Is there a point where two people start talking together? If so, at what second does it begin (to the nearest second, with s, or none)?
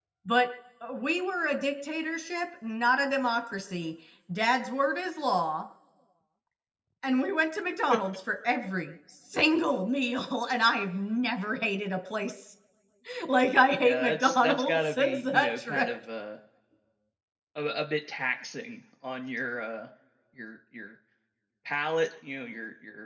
14 s